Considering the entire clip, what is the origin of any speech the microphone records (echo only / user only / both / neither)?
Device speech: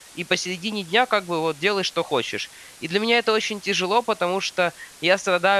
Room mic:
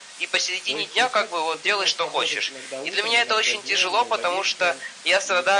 both